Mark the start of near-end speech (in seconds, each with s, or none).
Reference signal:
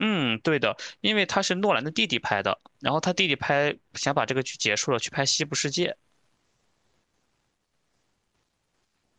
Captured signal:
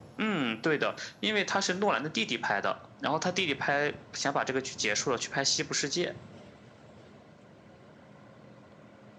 none